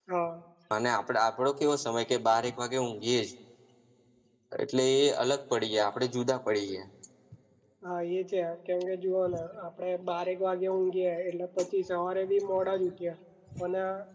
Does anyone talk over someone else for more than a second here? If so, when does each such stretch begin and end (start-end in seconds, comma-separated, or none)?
none